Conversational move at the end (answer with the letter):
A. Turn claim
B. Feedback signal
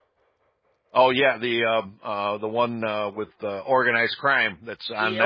A